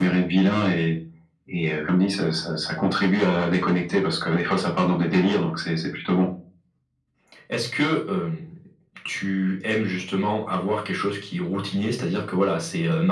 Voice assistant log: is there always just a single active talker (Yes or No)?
Yes